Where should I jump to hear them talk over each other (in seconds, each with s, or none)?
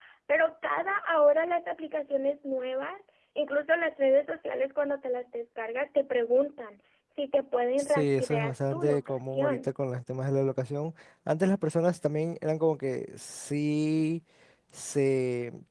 7.8 s